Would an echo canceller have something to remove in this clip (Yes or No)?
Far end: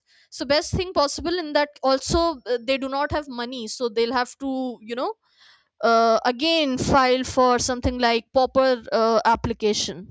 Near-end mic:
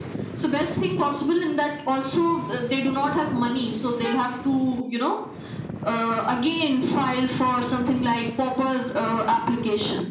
Yes